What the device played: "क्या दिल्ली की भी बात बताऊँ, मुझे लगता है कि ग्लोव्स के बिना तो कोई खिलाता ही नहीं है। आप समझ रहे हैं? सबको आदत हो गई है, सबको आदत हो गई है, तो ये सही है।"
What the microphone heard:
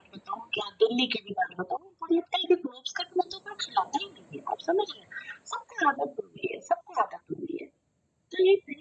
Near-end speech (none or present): none